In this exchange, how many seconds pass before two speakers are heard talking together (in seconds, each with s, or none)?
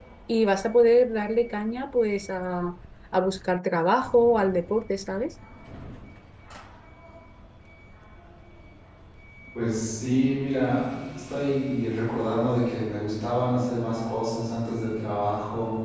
none